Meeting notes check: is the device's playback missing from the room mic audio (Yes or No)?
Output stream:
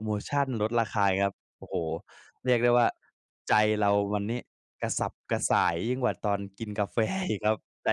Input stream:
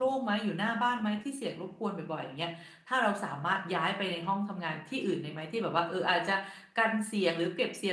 Yes